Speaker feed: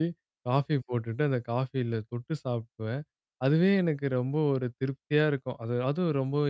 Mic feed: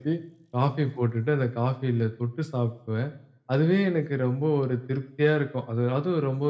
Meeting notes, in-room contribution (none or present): none